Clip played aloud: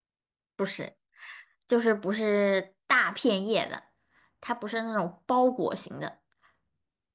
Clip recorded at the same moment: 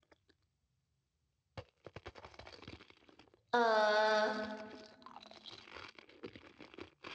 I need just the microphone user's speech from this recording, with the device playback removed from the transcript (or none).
呃，